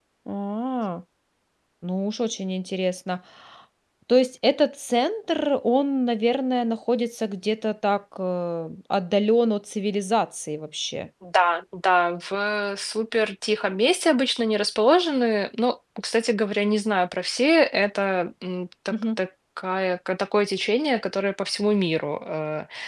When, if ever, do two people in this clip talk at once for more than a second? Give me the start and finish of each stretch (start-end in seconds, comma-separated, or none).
none